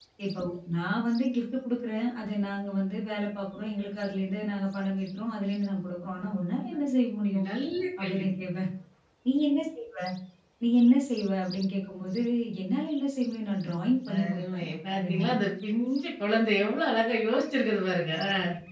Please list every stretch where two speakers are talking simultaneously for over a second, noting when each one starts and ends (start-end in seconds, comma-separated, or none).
14.1-15.3